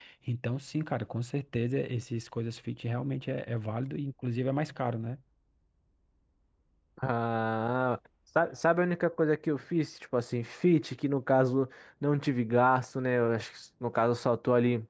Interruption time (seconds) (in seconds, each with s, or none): none